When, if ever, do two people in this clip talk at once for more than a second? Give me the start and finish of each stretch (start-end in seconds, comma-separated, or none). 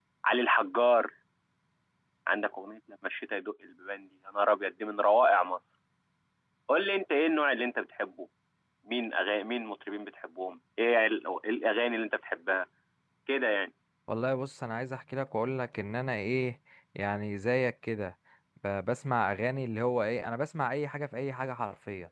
none